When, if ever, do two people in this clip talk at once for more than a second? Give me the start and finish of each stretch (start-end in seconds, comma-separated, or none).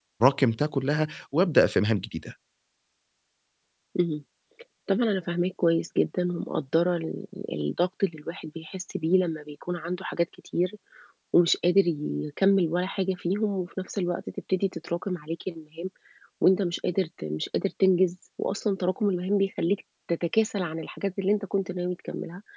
none